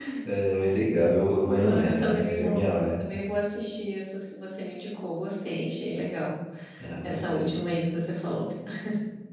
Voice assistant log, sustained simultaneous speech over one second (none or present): present